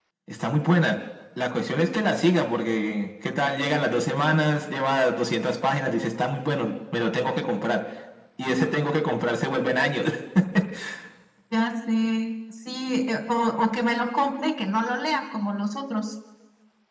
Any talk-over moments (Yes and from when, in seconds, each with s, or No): No